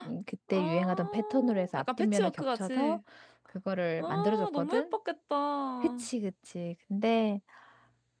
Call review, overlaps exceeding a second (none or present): present